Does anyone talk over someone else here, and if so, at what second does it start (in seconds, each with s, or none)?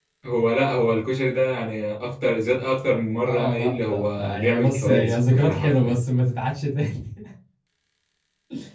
3.2 s